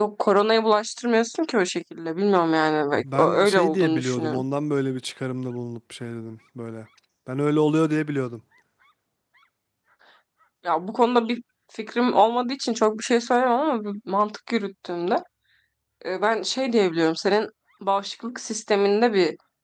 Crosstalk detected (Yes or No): Yes